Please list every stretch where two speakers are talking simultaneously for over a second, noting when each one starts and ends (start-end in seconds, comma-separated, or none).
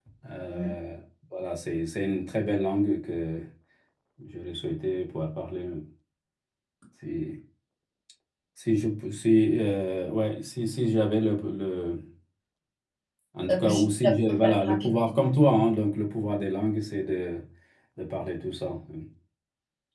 13.5-14.9